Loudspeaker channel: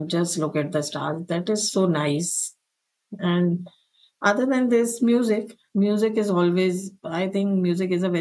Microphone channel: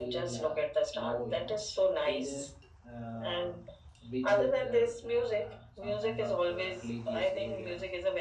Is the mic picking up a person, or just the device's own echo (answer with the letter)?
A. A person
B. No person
A